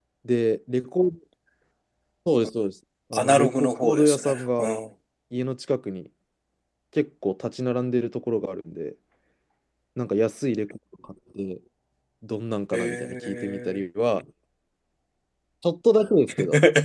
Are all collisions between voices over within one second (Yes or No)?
No